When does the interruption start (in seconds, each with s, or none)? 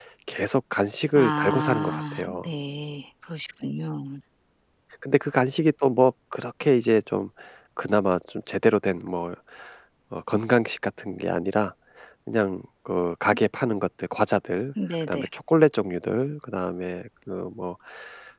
1.1 s